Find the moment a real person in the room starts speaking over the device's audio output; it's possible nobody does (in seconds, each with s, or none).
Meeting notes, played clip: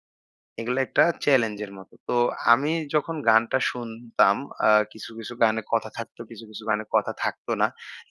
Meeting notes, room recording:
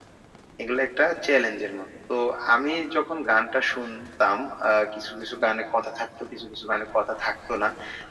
none